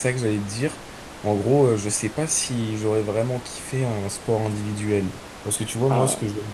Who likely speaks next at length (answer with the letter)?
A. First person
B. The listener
A